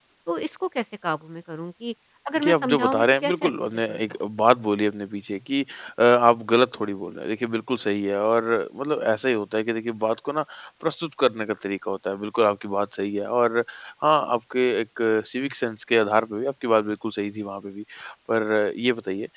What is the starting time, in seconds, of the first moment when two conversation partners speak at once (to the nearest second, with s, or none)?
2 s